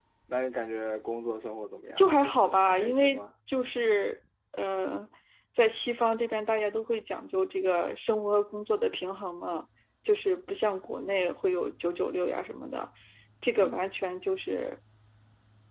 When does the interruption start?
1.9 s

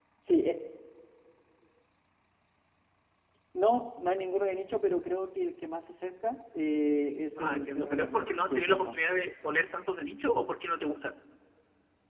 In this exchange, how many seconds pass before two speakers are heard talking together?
7.4 s

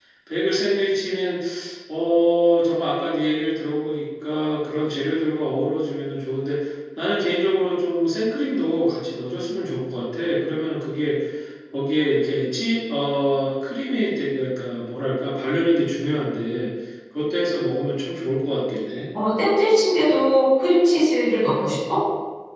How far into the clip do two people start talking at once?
none

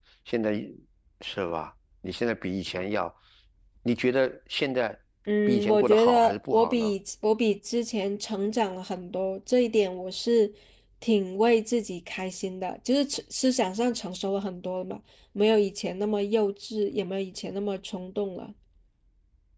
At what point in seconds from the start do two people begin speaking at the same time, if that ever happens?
5.5 s

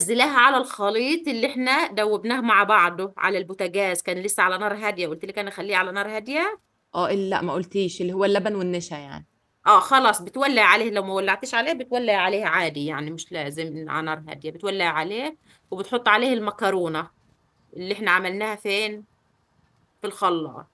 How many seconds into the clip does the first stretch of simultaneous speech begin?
none

